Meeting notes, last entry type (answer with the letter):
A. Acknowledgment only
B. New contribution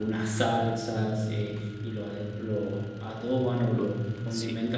A